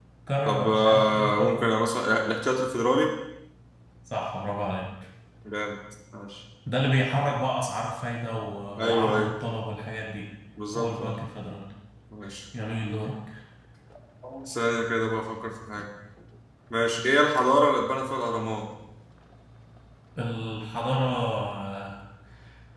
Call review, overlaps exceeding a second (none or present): present